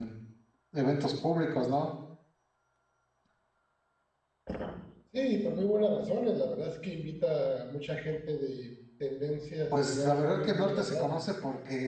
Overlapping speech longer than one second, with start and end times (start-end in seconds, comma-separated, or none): 9.7-11.2